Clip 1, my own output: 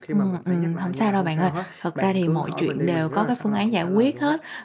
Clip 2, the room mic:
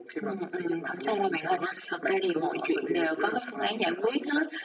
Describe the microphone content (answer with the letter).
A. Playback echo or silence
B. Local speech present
A